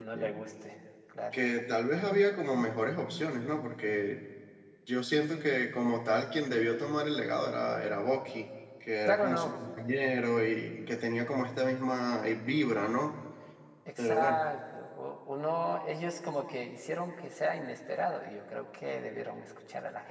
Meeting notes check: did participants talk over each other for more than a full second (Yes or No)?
No